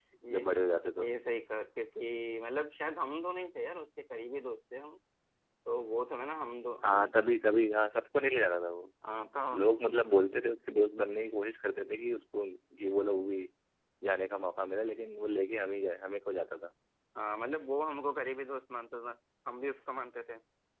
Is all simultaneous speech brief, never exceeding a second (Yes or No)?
Yes